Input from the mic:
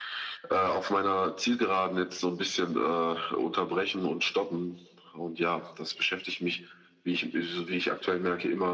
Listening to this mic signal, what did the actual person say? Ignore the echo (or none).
none